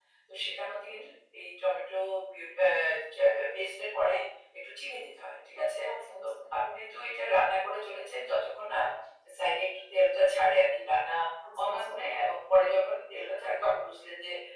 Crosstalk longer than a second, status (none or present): none